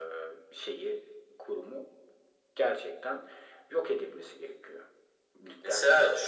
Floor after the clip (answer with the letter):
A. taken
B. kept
A